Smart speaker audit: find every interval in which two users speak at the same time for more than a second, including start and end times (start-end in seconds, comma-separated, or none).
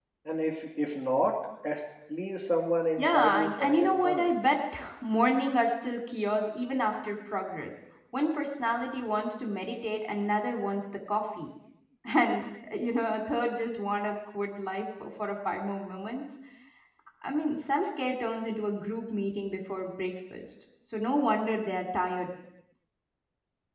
3.0-4.3